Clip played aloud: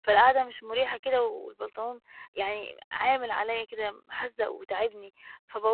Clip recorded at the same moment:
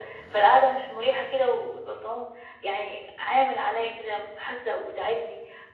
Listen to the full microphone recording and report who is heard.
echo only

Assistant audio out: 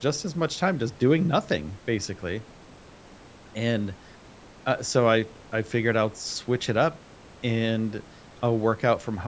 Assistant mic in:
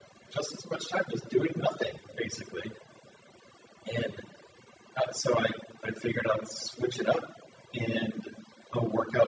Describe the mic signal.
echo only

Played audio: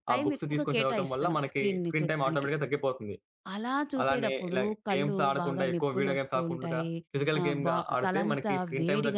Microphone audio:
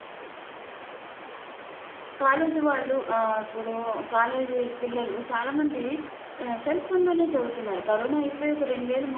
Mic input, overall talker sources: user only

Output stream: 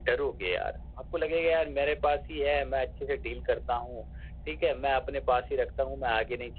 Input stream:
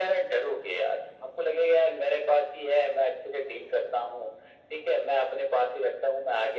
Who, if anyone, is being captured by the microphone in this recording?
echo only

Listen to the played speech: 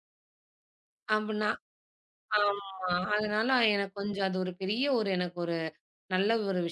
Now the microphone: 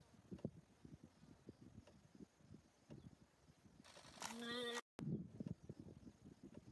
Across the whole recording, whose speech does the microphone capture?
neither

